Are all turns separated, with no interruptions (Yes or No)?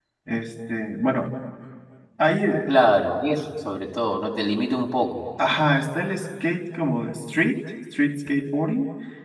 Yes